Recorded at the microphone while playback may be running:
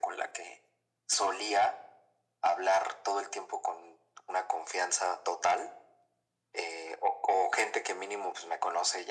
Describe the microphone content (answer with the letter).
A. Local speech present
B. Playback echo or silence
B